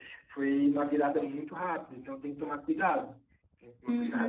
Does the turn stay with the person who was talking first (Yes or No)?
No